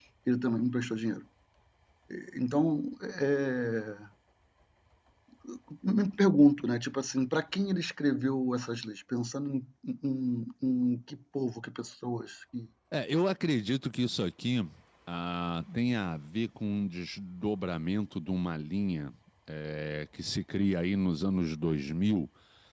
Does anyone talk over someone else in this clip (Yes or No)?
No